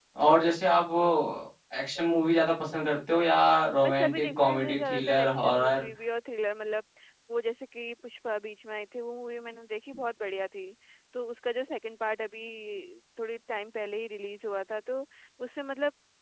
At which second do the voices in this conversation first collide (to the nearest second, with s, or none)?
4 s